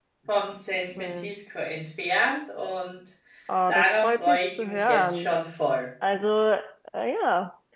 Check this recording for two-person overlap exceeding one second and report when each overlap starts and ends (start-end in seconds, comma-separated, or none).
3.7-5.3